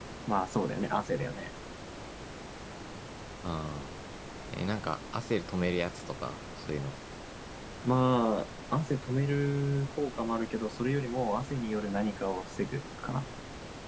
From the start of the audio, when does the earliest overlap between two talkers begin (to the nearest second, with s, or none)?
none